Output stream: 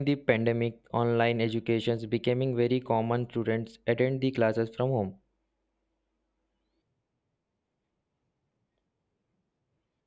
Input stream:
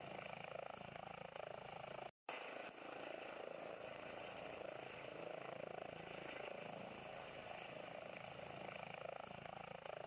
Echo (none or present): none